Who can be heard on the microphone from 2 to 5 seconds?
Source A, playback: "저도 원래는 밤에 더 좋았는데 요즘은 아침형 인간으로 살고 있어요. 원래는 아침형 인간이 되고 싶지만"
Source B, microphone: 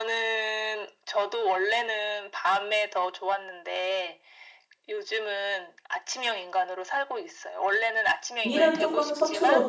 echo only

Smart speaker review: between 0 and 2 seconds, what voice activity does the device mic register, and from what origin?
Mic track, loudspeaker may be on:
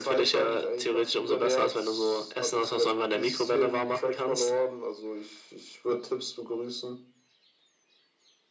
echo only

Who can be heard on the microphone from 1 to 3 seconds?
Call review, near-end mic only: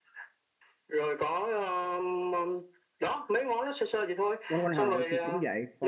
echo only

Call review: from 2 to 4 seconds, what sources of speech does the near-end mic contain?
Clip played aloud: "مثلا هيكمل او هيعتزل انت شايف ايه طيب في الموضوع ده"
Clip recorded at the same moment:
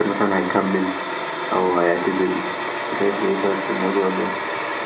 echo only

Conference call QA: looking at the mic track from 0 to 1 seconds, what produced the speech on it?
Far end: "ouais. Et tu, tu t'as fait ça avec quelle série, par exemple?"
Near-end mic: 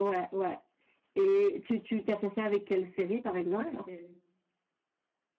echo only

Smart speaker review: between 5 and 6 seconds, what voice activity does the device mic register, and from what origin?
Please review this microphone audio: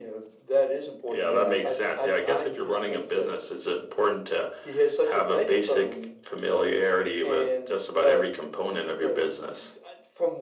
echo only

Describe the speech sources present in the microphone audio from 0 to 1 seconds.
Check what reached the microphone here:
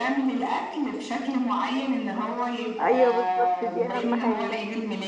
echo only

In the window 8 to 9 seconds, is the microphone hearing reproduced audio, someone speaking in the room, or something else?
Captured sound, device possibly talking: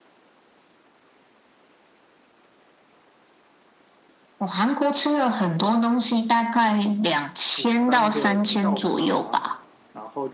both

